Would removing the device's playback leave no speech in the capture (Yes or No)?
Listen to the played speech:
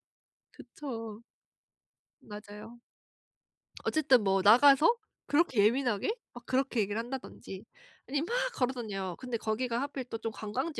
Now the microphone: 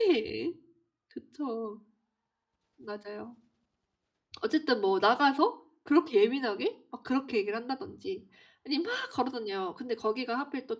Yes